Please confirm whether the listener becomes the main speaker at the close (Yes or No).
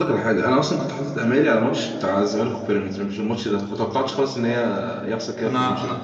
Yes